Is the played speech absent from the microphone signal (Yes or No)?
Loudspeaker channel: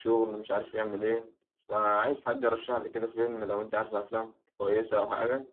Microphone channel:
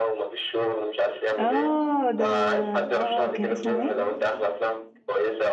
No